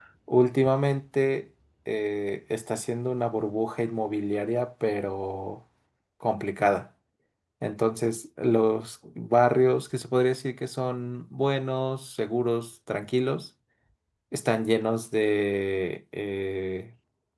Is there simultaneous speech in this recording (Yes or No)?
No